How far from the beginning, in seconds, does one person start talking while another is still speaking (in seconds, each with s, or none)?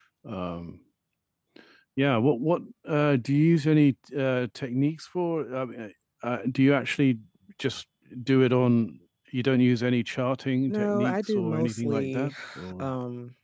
10.7 s